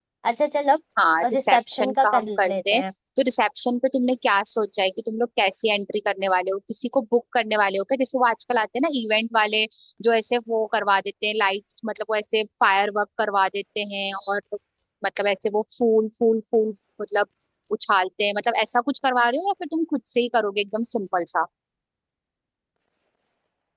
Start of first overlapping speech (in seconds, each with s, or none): 1.4 s